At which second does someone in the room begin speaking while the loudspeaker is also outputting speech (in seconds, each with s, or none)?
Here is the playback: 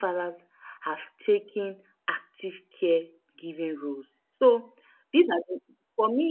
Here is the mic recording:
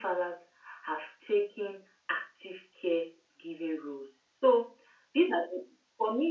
none